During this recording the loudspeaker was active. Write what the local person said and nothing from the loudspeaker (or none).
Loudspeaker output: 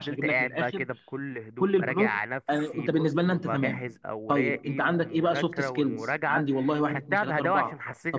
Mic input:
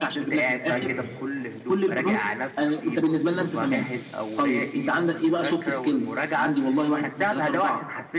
امم إمم.